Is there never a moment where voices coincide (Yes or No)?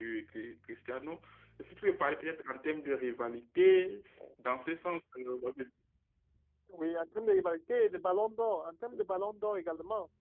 Yes